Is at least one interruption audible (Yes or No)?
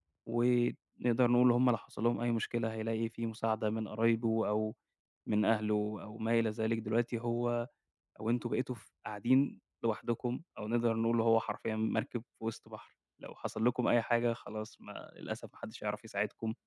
No